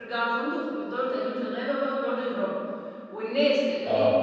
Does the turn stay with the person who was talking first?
Yes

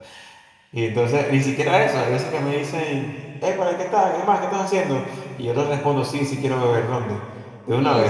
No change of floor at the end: No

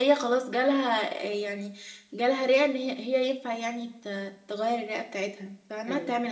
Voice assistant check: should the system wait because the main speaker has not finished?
No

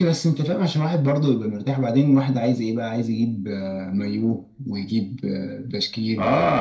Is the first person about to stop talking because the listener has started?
Yes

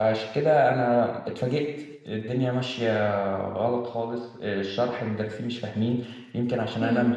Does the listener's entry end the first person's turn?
No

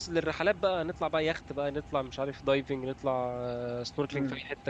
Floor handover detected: Yes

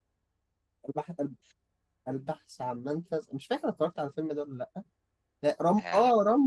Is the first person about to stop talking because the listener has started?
No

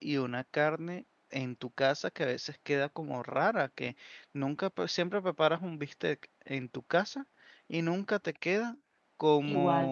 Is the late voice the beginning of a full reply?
No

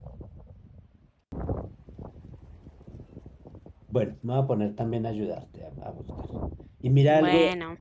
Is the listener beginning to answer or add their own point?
No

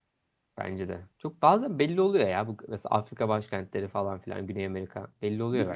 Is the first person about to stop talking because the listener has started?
Yes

